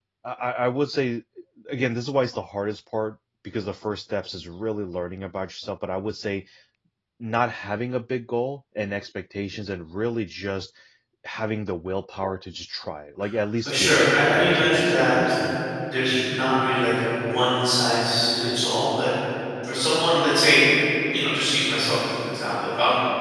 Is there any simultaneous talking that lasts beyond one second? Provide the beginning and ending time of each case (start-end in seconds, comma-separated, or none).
13.6-15.3